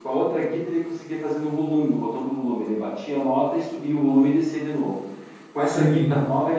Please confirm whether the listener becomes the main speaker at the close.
No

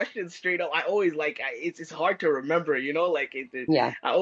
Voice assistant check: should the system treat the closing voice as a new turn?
No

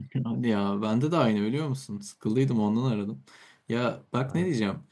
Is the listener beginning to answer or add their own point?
No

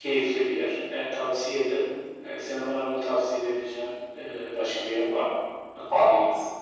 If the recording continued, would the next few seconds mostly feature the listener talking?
Yes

